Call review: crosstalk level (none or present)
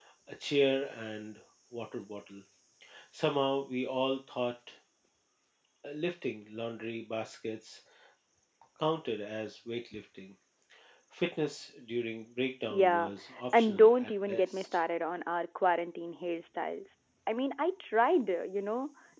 present